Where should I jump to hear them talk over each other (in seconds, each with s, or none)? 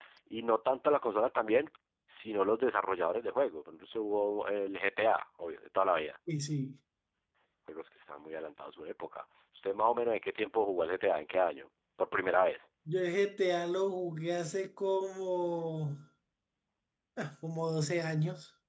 none